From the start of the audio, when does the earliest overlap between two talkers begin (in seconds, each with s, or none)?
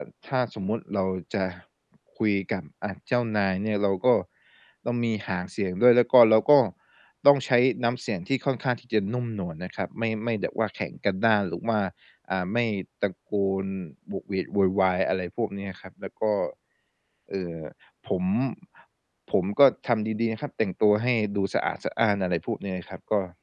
none